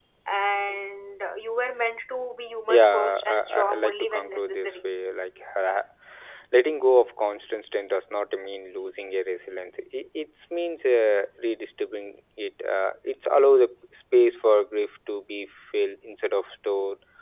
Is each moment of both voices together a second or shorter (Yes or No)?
No